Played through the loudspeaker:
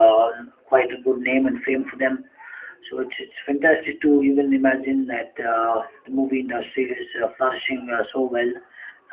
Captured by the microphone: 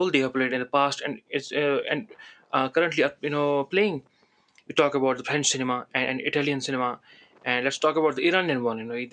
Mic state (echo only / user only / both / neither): user only